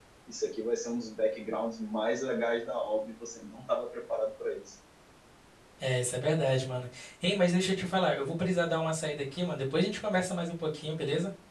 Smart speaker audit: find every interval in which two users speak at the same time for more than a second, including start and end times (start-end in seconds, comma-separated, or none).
none